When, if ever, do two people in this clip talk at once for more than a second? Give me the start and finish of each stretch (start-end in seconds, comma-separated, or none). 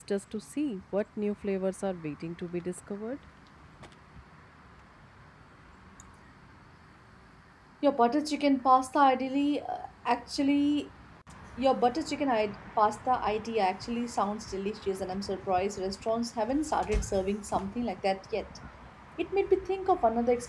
none